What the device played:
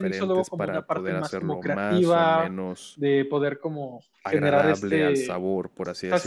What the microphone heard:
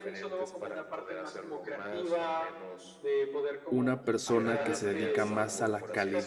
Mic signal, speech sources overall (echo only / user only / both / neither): both